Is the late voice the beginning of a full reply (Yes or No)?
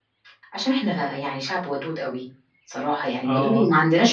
No